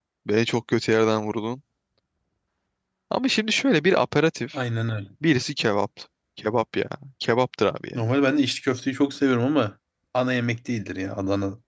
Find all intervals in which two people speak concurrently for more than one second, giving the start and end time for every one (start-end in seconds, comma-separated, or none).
none